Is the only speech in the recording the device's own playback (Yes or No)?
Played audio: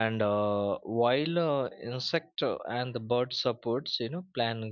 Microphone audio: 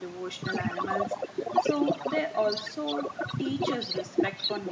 No